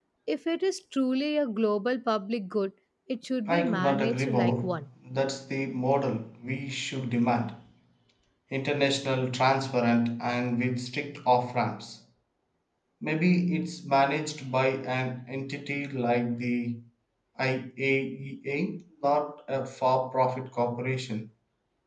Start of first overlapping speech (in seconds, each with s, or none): 3.5 s